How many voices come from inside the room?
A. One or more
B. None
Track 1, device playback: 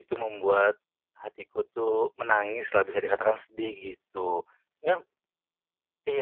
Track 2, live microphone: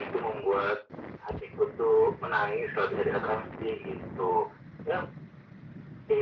B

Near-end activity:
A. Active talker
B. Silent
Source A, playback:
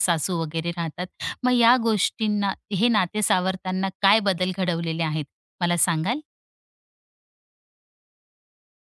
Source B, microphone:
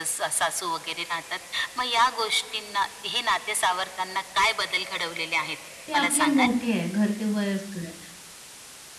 A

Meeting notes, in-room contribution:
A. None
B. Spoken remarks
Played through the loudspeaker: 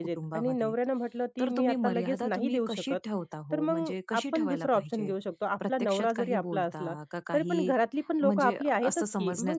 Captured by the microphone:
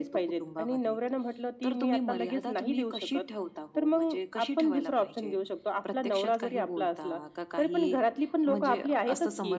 A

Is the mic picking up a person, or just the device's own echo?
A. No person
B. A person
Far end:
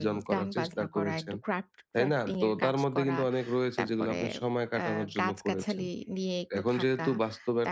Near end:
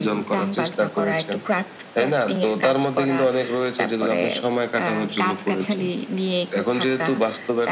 A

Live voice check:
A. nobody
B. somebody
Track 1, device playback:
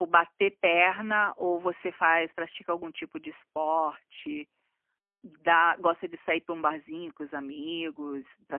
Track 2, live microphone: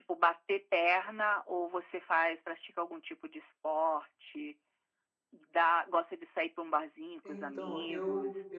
B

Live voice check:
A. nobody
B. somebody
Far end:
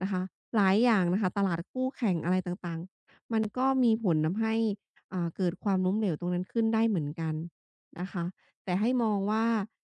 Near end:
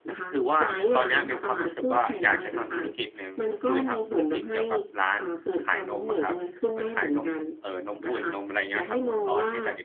B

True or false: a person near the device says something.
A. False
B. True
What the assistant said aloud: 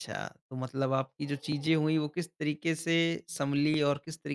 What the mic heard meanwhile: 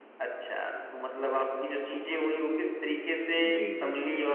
B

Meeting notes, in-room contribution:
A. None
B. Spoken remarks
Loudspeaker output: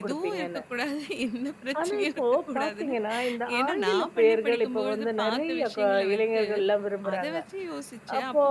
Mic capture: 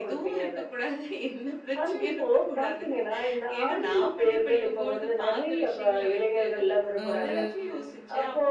B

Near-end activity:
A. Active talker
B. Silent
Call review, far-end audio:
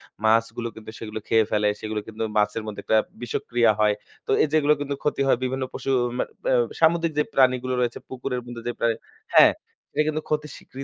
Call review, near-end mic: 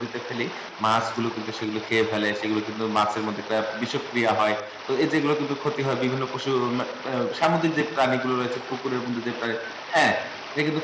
B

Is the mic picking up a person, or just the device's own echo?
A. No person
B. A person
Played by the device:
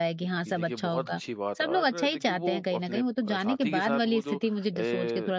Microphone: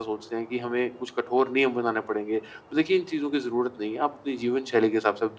B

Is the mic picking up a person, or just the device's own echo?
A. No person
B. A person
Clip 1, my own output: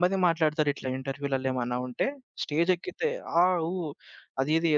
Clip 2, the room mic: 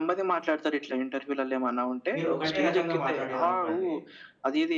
B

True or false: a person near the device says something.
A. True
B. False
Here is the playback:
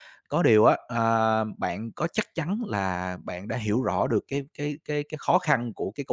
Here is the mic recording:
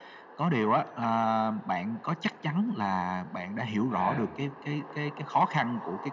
A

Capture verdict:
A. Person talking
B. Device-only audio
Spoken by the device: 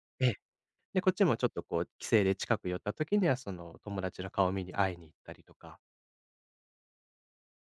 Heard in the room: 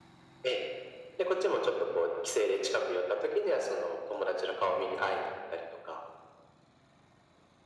B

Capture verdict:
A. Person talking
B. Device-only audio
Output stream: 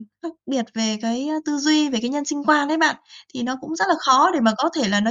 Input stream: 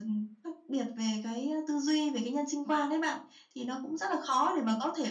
B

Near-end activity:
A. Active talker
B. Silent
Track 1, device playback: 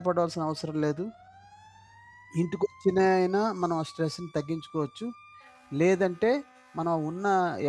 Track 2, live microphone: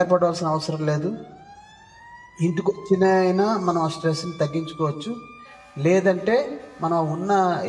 B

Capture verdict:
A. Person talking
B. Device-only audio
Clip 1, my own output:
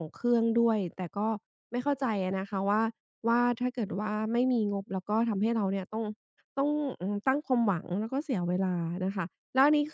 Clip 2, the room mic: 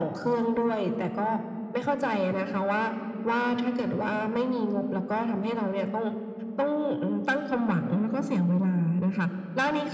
B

